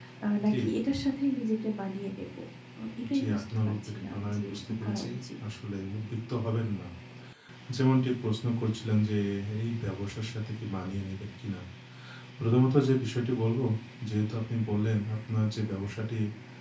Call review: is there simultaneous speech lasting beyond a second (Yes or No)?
Yes